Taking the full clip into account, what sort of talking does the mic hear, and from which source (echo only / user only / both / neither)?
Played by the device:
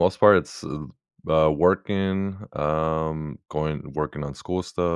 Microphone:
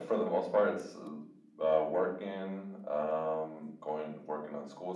echo only